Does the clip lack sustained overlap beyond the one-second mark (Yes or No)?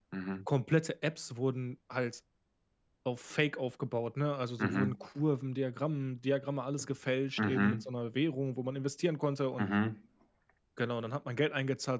Yes